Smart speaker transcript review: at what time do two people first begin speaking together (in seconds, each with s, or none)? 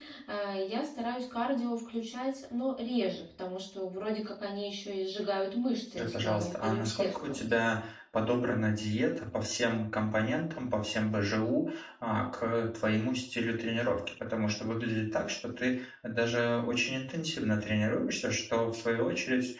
6.0 s